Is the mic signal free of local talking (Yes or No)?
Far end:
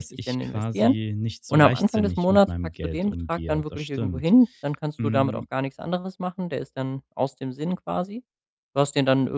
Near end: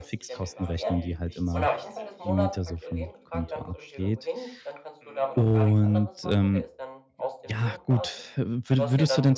No